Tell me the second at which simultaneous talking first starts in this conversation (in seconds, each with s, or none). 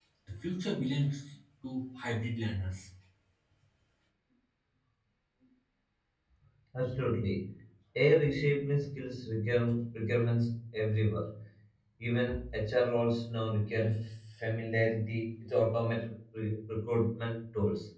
none